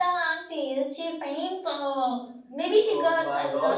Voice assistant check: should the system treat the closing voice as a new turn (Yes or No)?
Yes